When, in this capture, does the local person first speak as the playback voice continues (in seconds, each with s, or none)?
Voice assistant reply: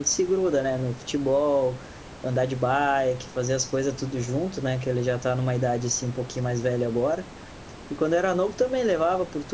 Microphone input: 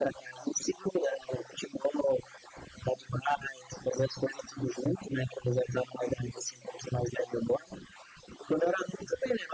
none